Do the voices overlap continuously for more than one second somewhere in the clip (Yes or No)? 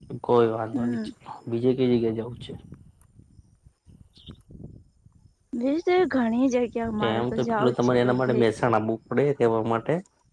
Yes